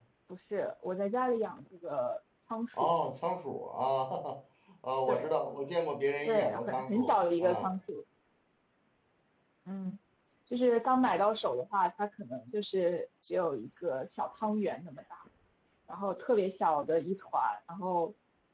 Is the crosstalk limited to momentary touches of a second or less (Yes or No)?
No